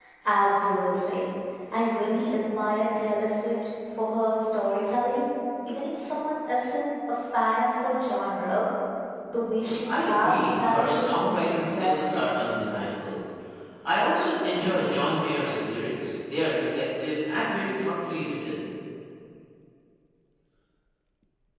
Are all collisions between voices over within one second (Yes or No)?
No